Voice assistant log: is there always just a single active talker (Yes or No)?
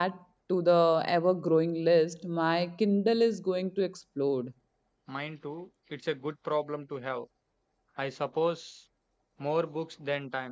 Yes